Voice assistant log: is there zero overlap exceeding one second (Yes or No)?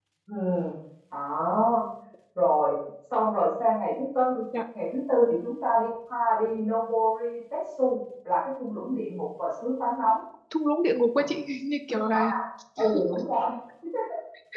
Yes